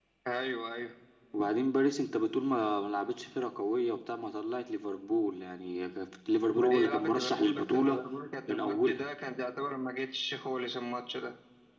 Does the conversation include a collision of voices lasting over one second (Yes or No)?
Yes